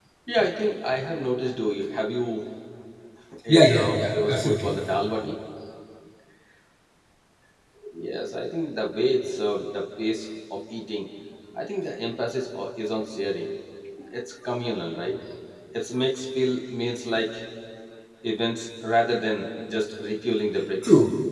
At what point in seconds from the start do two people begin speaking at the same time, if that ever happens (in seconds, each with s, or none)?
3.5 s